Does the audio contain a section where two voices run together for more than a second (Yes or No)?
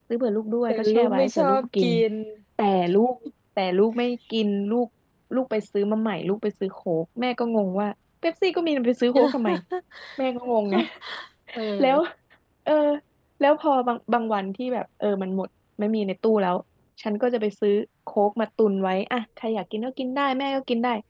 Yes